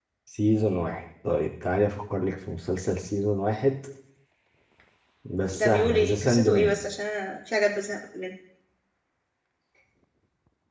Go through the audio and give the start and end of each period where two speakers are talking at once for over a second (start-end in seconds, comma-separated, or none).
5.5-6.8